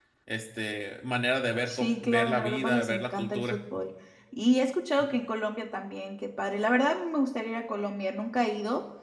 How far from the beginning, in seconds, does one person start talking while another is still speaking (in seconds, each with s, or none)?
1.7 s